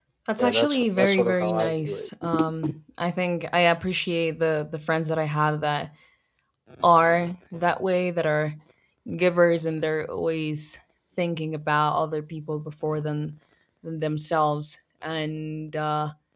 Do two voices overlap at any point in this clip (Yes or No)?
Yes